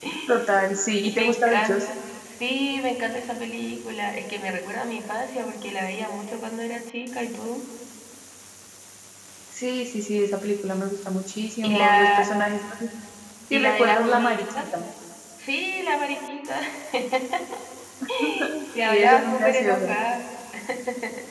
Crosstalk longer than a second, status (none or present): present